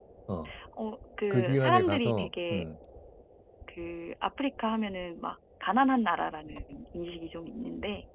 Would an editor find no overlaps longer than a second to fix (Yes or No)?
No